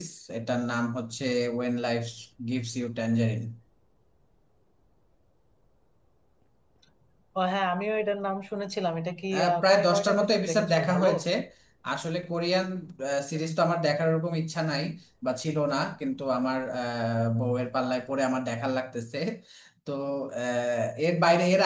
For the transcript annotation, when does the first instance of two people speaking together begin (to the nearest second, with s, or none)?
9 s